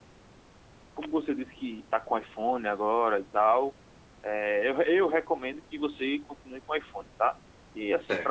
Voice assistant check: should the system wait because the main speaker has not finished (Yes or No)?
Yes